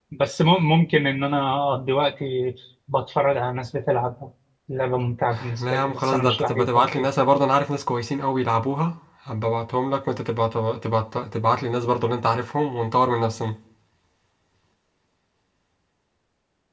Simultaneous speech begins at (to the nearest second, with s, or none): 6 s